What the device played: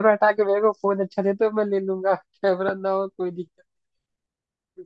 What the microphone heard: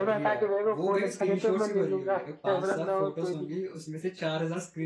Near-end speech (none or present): present